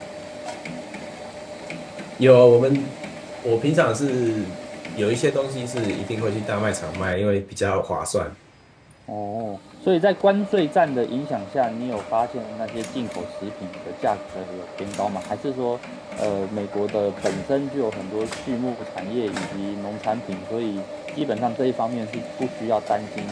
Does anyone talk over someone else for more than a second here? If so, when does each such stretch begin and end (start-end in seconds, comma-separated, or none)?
none